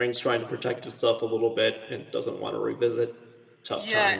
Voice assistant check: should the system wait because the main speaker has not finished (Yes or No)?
No